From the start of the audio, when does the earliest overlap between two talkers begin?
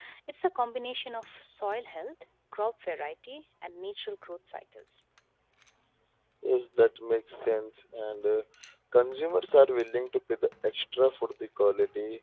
none

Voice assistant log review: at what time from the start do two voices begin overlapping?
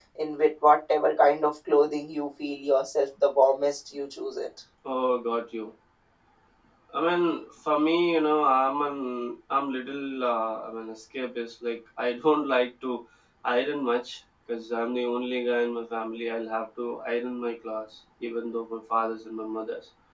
none

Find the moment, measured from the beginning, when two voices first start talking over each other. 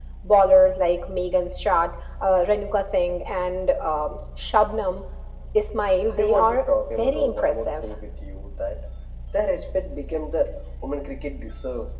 6.1 s

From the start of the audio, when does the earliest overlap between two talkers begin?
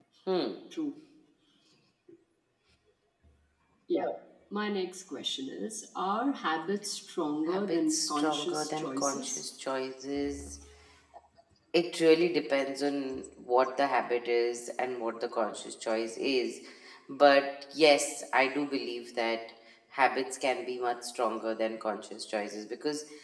7.5 s

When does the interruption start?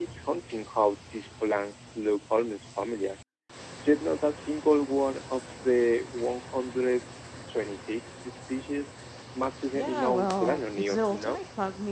9.7 s

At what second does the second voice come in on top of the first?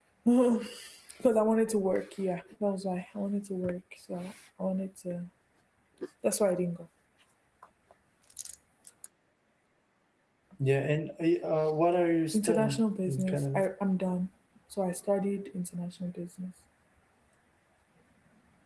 12.3 s

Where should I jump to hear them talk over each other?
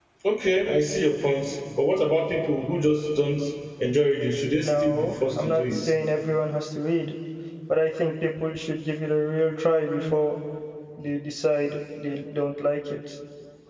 4.6 s

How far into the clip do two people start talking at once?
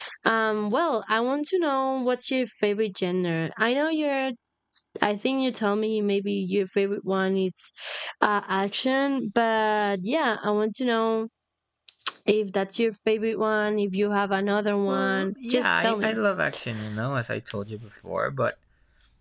14.9 s

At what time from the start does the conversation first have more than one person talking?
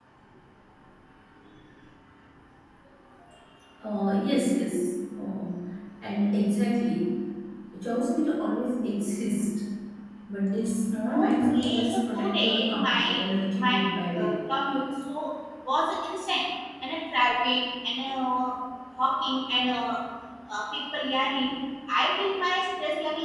11.1 s

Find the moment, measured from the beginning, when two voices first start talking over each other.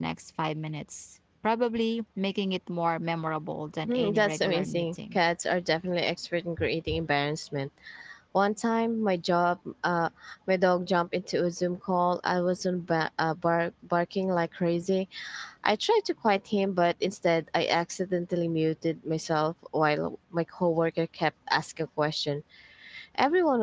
3.9 s

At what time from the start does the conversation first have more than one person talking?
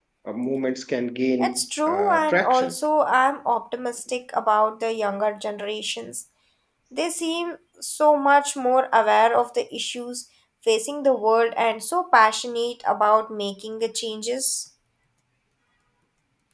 1.4 s

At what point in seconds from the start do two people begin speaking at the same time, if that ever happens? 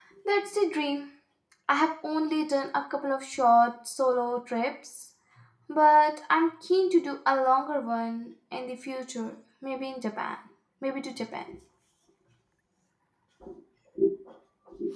none

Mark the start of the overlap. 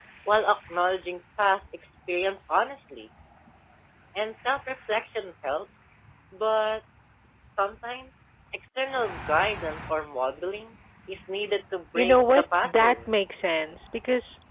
11.9 s

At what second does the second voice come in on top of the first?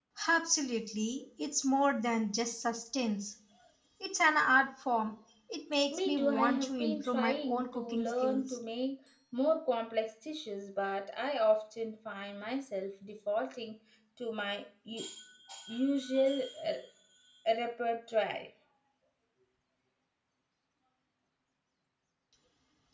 5.9 s

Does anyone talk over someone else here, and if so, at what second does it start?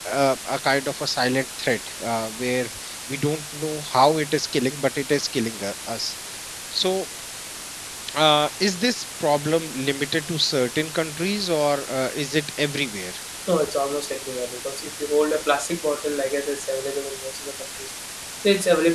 none

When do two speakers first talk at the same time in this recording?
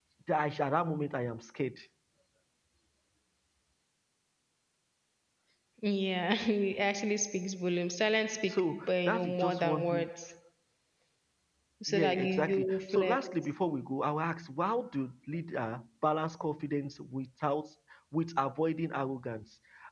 8.5 s

